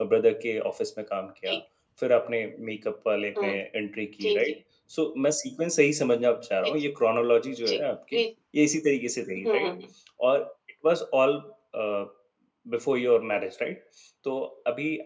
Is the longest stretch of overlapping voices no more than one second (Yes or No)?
Yes